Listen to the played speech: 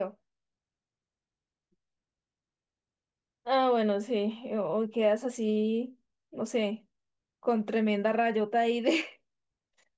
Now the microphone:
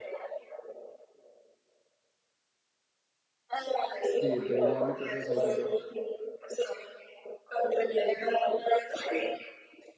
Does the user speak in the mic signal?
Yes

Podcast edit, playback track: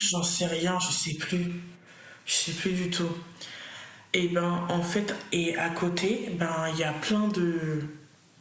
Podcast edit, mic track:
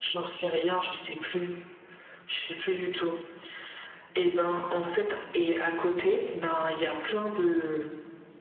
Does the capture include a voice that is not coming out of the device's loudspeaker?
No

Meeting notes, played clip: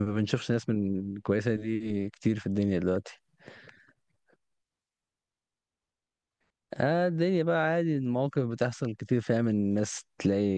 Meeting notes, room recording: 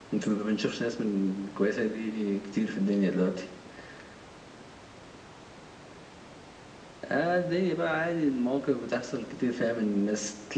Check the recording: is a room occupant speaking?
No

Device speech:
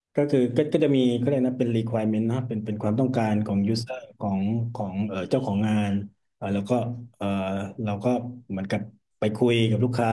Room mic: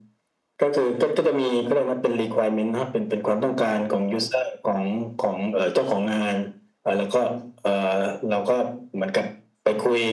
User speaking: No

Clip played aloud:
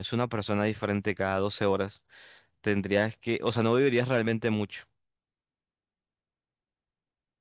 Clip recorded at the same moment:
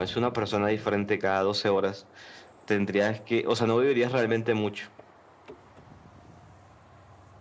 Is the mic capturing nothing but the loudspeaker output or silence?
Yes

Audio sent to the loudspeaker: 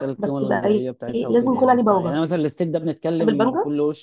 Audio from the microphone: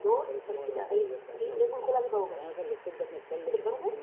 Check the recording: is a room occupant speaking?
No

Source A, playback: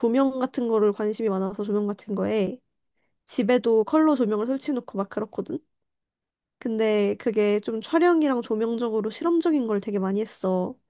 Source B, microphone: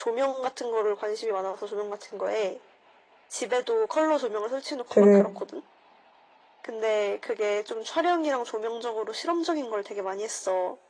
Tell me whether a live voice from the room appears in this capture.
Yes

